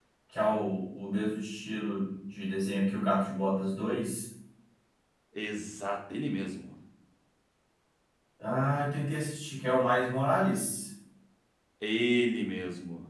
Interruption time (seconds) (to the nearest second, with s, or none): none